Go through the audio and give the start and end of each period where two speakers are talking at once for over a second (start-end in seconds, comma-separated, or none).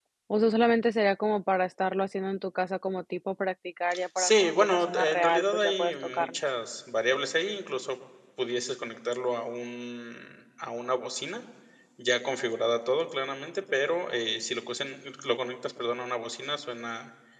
4.2-6.3